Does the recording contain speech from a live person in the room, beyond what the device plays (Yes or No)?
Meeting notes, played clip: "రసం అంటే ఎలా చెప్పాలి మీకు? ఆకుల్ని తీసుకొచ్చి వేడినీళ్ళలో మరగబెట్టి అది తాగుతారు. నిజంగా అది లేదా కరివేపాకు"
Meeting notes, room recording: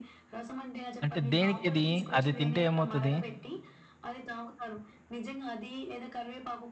Yes